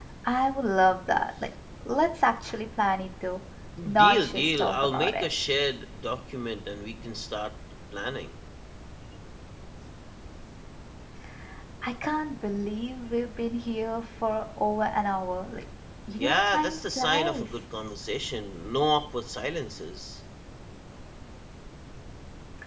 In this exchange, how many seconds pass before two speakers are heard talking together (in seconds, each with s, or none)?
4.0 s